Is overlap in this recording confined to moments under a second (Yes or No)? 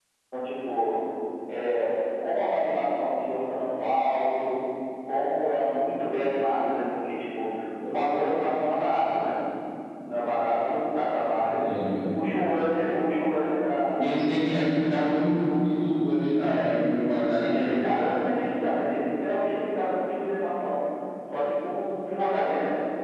Yes